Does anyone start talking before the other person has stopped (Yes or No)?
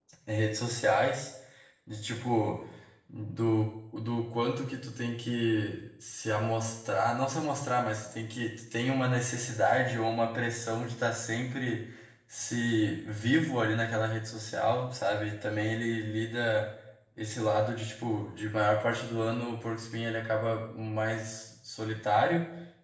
No